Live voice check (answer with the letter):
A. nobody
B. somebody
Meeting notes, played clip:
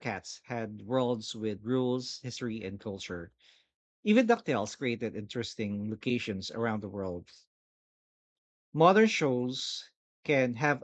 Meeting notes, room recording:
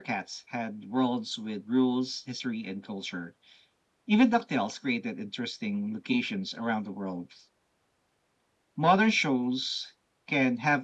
A